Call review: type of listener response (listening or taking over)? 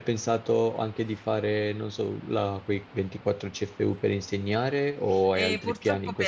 taking over